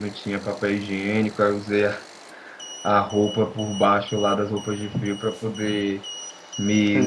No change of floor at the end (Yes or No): Yes